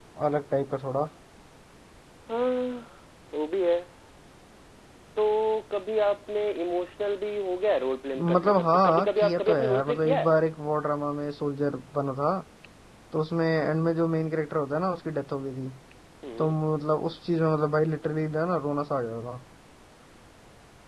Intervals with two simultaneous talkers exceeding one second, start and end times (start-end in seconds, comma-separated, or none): 8.2-10.3